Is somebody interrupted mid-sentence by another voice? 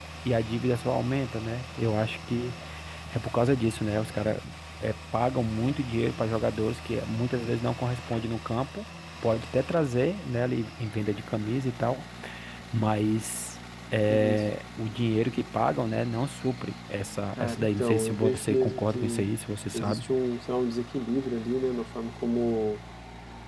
Yes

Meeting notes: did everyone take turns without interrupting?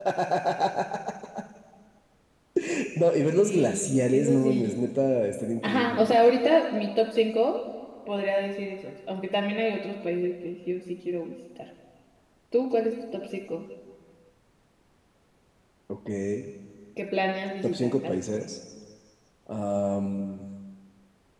No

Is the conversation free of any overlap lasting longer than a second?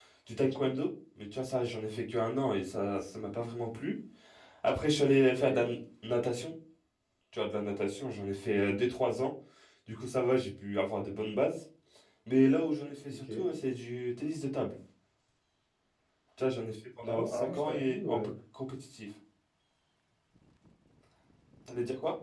No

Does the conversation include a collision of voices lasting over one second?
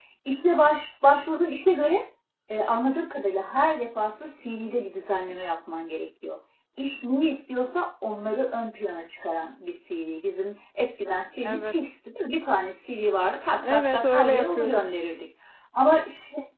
Yes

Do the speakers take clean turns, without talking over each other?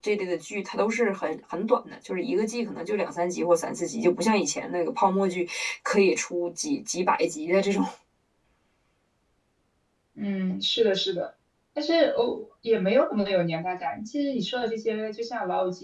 Yes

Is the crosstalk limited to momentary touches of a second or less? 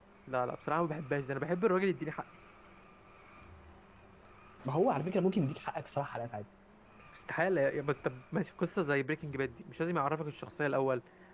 Yes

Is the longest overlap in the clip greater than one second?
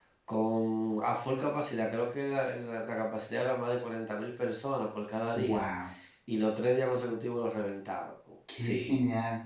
No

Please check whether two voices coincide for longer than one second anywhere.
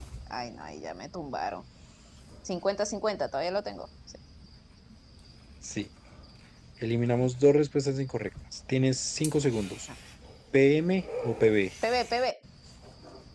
No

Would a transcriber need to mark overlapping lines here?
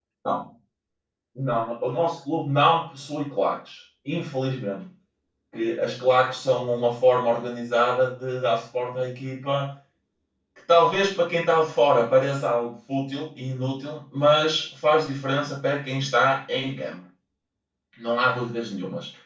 No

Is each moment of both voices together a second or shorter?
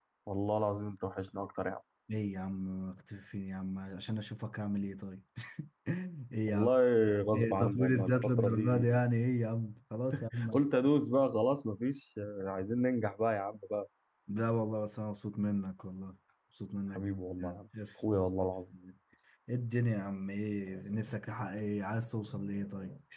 No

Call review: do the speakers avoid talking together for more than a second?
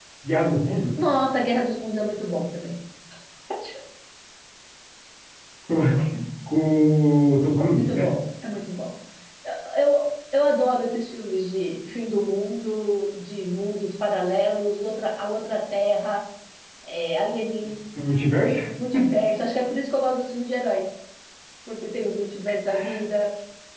Yes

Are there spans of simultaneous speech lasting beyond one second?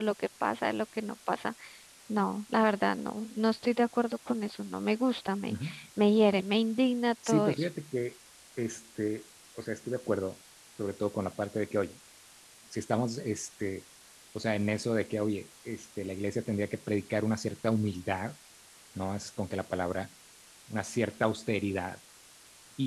No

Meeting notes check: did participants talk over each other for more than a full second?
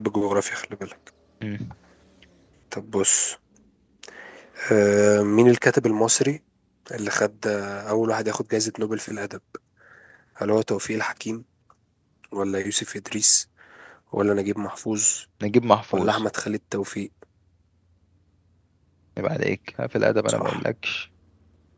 No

